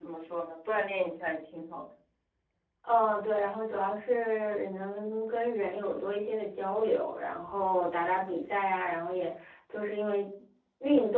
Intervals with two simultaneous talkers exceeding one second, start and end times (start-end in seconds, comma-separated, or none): none